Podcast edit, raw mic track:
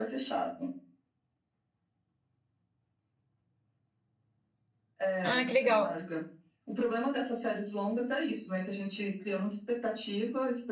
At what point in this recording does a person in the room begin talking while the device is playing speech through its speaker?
5.2 s

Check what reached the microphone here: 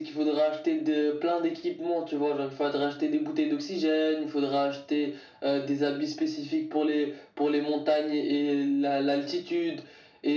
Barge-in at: none

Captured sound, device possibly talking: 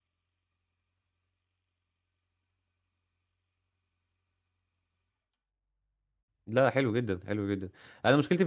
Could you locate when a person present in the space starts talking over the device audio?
6.5 s

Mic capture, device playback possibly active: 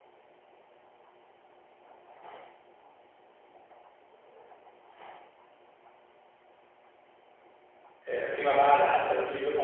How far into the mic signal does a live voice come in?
8.1 s

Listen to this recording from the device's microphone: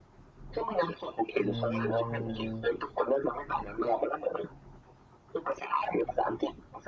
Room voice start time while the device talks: 1.4 s

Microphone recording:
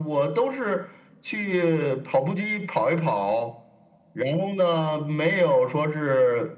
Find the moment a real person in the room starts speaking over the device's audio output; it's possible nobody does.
none

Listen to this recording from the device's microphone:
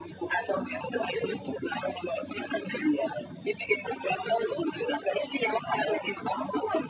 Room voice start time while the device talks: none

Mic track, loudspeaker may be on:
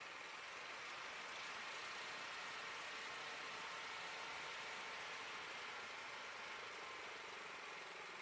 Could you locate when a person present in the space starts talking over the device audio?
none

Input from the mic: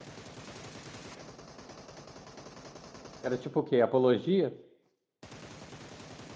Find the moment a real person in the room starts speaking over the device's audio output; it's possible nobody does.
3.2 s

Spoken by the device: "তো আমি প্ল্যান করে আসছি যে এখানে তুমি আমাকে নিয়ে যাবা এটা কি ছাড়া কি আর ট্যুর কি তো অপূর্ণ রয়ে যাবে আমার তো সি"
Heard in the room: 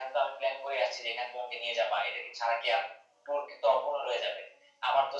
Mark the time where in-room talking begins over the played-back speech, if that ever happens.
none

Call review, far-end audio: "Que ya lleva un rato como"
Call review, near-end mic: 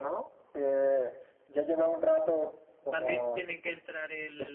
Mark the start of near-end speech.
2.9 s

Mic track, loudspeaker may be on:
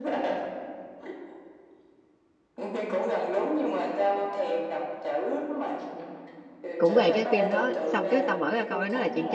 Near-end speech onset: 6.8 s

